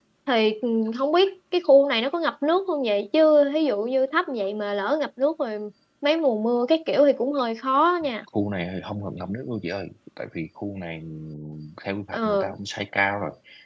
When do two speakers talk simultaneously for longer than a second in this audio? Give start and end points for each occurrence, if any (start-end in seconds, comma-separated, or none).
none